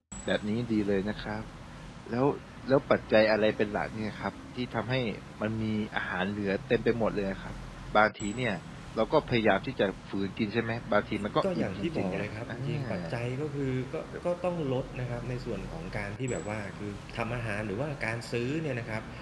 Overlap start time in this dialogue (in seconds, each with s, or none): 11.1 s